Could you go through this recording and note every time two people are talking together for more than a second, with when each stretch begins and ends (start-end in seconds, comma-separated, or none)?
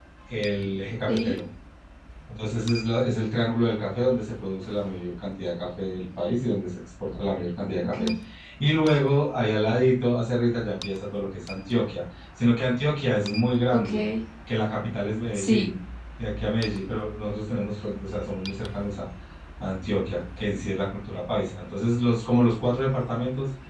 none